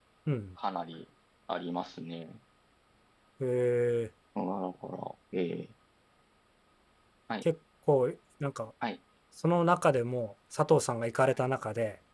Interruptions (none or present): none